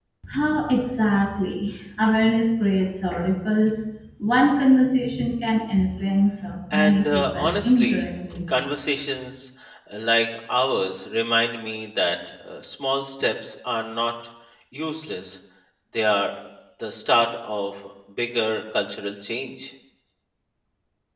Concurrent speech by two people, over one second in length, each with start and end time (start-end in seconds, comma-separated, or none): 6.7-8.0